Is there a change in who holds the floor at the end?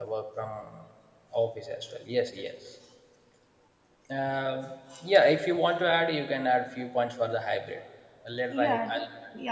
Yes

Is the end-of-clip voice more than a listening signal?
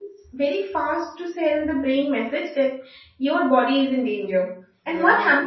No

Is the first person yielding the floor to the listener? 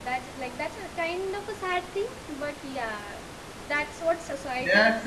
Yes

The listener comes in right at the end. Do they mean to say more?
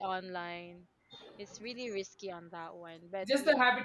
Yes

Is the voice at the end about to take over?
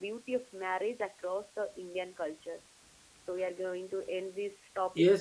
Yes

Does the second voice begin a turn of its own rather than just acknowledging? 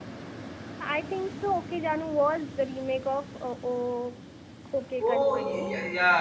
Yes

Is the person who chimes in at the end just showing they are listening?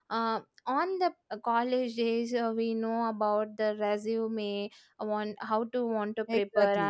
Yes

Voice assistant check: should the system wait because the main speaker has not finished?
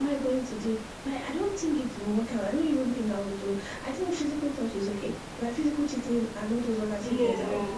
Yes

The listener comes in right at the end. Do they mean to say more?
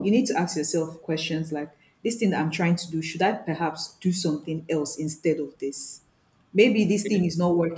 No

